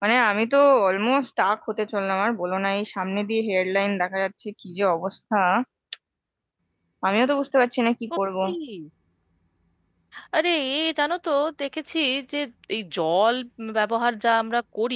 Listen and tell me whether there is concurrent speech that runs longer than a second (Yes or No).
No